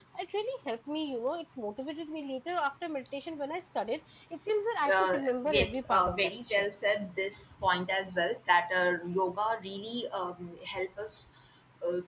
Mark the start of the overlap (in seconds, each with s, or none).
4.8 s